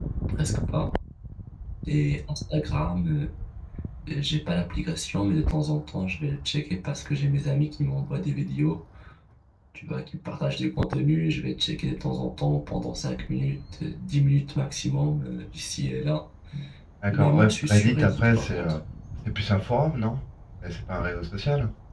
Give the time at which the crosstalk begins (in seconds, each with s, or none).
17.1 s